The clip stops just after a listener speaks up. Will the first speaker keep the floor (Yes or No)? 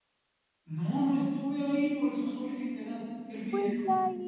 No